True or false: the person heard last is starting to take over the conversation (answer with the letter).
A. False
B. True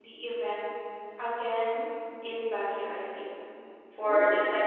A